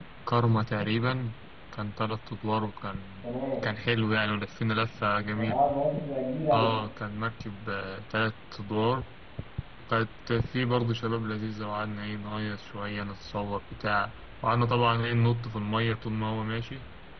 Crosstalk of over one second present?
No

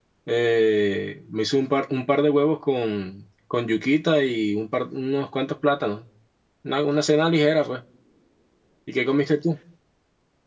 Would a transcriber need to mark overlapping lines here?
No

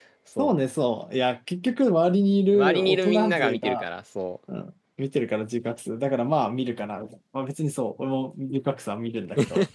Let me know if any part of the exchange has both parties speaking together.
Yes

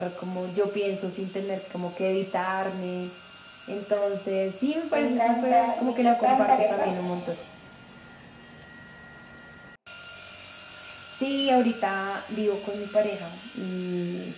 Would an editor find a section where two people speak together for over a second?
Yes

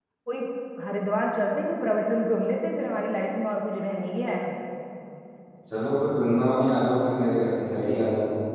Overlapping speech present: No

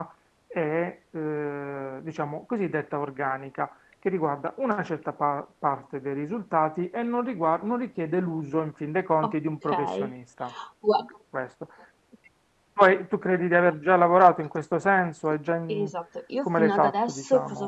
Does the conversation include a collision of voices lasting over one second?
Yes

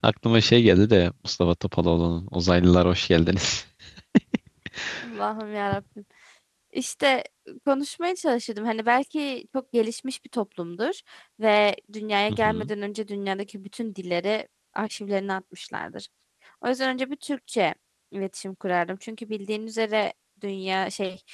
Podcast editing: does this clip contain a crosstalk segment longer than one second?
No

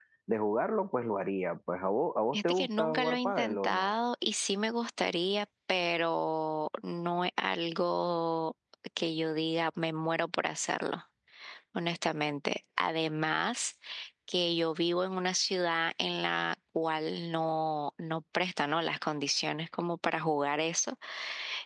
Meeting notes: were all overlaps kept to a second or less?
No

